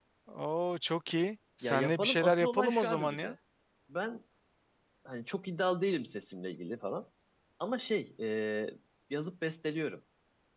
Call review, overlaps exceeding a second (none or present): present